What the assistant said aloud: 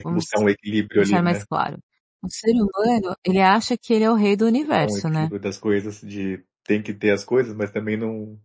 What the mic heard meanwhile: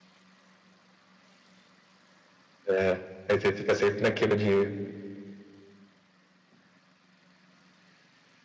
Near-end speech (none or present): present